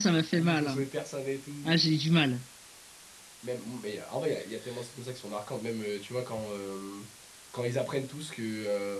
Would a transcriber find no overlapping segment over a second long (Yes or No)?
Yes